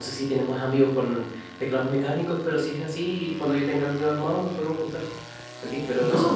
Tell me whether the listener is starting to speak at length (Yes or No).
No